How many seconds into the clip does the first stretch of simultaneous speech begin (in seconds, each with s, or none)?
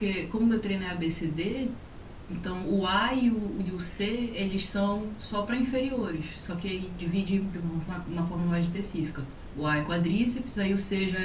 none